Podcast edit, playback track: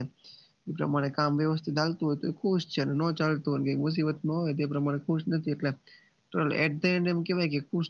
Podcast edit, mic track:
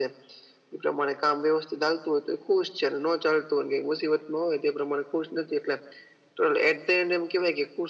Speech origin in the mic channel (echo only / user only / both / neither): echo only